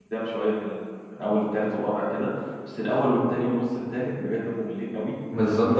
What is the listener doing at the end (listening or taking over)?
taking over